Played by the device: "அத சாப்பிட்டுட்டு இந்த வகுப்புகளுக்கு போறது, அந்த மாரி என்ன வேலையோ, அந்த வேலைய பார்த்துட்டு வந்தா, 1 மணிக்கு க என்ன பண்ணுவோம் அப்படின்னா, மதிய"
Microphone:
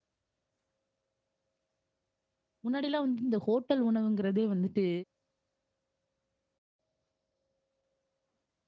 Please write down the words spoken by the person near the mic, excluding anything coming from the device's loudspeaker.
முன்னாடிலாம் வந்து இந்த ஹோட்டல் உணவுங்கிறதே வந்துட்டு

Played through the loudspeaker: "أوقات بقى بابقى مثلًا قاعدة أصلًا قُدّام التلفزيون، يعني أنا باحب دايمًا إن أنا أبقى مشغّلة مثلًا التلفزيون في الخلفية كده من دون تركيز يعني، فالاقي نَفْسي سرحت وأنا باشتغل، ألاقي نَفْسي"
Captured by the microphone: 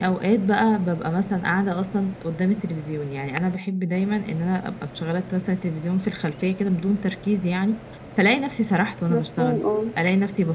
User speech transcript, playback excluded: مفهوم آه.

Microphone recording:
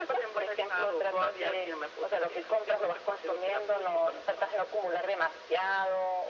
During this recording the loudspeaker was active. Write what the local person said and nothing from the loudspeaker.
none

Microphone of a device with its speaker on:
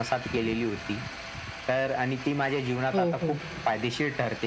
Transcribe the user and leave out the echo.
हो, हो.

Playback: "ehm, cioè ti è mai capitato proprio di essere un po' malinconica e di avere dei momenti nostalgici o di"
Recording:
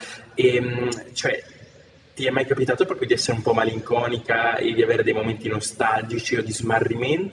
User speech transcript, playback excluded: none

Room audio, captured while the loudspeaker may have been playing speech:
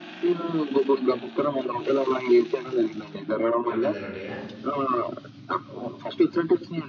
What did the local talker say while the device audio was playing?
కోడి పందాలుంటాయా?

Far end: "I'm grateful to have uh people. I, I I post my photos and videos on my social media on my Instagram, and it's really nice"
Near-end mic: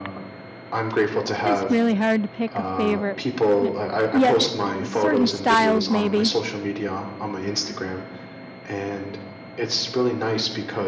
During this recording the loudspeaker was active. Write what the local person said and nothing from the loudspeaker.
It's really hard to pick a favorite. Eh, Yeah, there there certain styles maybe.

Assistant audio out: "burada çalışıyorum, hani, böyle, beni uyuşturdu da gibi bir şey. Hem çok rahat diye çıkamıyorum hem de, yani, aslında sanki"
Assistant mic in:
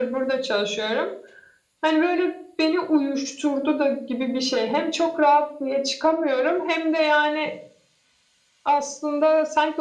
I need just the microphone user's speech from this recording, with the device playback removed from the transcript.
none

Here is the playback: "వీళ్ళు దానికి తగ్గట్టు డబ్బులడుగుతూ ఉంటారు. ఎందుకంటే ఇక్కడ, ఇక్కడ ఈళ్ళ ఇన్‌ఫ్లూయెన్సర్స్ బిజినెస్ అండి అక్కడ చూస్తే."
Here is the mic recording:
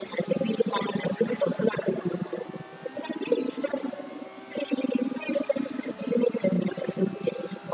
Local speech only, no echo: none

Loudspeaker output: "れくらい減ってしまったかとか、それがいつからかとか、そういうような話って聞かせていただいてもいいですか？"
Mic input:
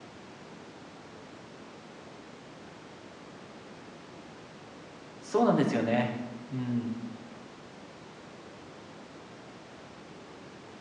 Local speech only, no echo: そうなんですよね。うん。

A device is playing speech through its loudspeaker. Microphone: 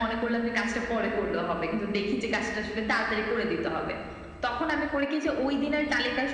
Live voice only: none

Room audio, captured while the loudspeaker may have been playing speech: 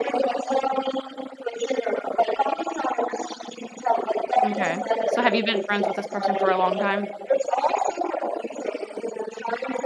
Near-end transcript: Okay. So have you been friends with this person for a long time?

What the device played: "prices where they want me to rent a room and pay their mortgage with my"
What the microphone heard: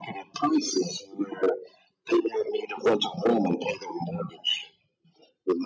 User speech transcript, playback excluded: none

